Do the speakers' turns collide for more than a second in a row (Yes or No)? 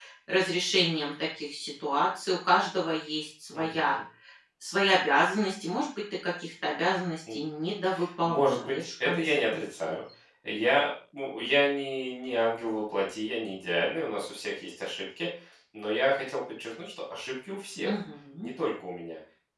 Yes